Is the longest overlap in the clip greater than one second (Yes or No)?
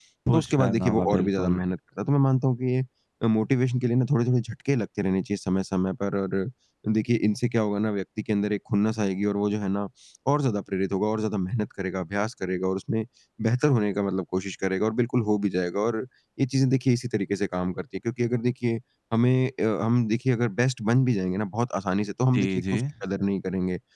Yes